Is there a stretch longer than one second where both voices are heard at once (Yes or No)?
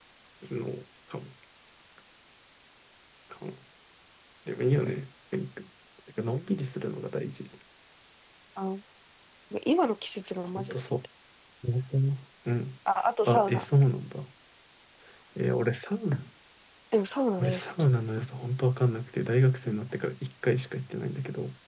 No